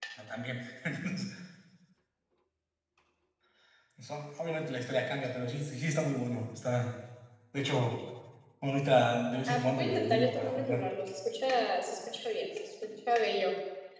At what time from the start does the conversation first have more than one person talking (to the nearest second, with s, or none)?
9 s